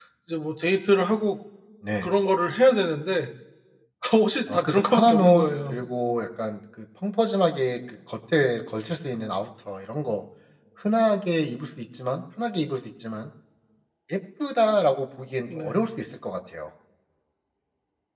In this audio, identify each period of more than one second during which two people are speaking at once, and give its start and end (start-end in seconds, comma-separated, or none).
4.5-5.8